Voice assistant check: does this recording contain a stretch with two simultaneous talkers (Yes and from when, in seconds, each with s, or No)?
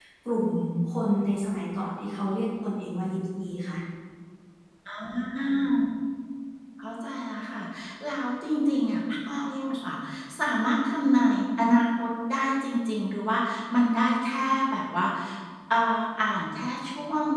No